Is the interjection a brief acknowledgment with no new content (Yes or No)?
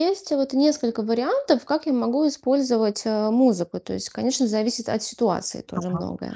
No